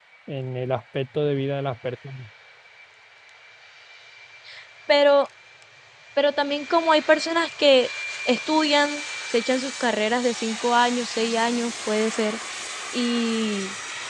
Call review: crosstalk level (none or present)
none